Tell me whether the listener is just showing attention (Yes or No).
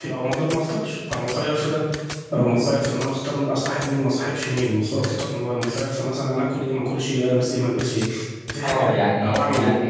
No